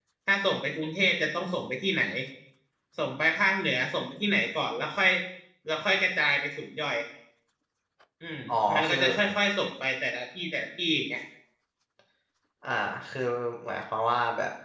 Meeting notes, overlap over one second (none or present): none